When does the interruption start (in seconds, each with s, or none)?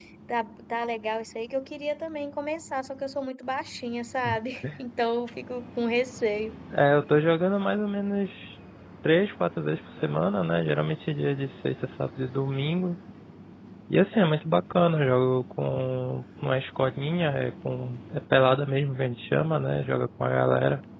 none